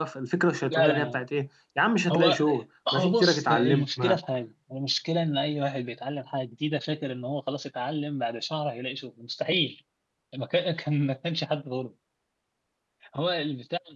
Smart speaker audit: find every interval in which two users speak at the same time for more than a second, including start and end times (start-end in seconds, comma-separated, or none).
2.9-4.2